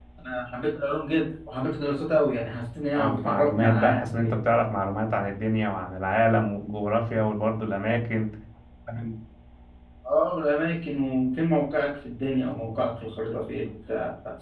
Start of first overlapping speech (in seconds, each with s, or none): 2.9 s